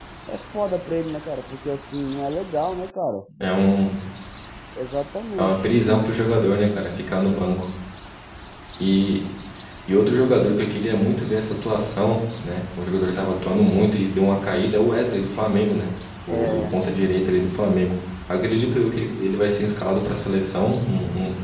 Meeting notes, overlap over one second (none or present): none